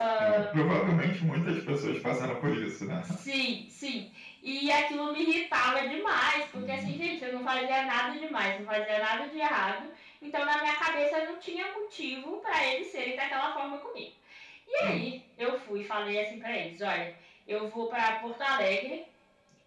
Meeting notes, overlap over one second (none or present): none